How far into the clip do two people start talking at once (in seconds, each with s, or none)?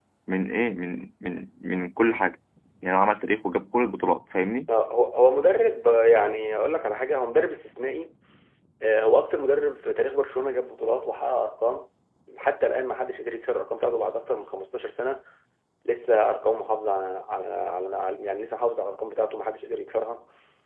none